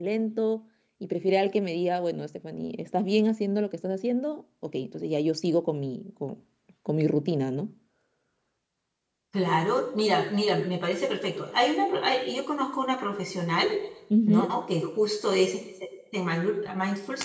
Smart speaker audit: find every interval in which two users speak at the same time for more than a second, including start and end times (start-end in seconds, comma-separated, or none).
none